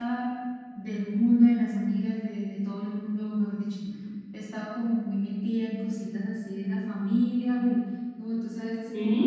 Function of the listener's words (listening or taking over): listening